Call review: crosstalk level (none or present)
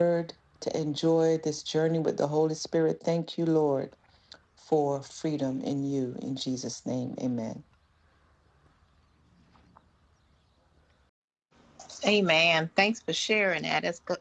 none